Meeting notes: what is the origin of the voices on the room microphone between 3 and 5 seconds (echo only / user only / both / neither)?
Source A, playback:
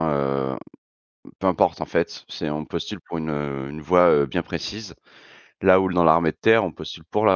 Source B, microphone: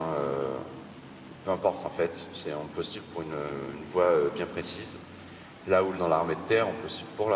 echo only